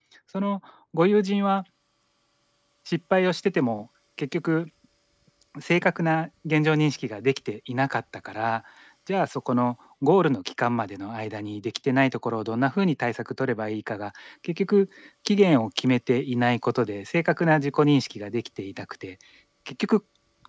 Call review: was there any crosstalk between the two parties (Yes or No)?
No